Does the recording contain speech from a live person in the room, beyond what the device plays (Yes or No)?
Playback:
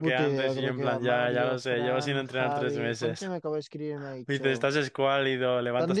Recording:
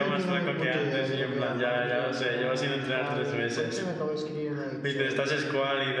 No